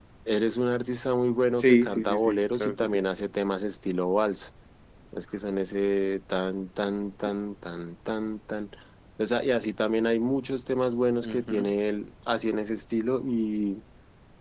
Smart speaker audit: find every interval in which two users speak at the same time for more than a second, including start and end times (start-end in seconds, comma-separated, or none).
1.6-3.0